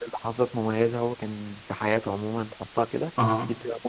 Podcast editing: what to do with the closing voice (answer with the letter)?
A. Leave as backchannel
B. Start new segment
A